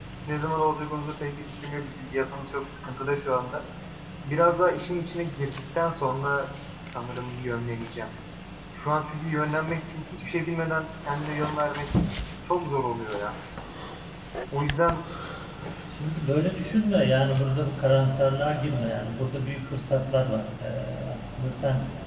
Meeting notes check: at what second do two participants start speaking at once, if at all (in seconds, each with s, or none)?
none